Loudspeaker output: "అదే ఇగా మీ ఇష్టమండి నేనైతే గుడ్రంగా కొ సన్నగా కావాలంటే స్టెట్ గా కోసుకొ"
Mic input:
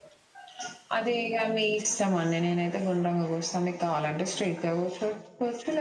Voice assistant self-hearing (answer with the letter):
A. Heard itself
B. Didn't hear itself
A